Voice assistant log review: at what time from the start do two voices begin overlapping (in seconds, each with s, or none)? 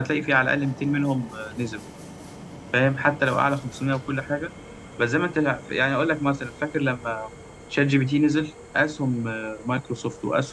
none